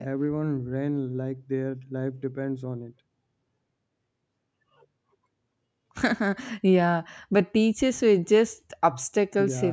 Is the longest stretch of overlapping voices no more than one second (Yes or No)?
Yes